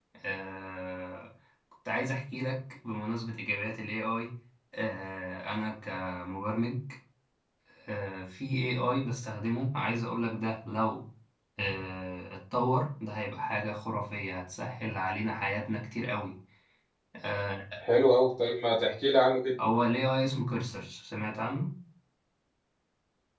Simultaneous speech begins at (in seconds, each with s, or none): none